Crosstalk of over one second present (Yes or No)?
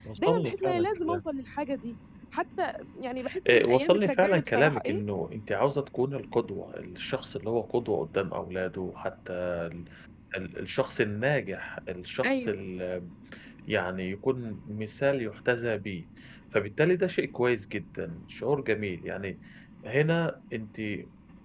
Yes